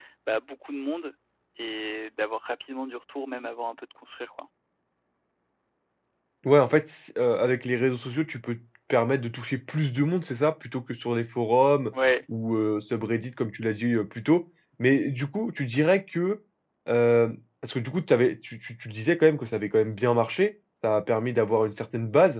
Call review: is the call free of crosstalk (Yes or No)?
Yes